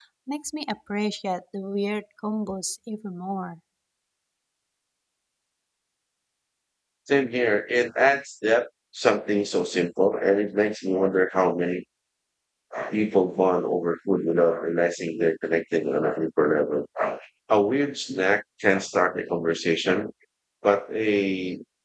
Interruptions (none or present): none